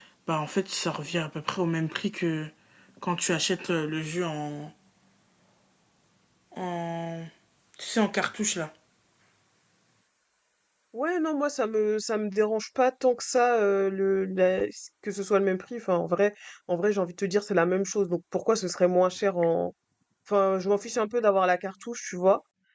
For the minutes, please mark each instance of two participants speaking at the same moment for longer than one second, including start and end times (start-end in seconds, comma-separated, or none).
none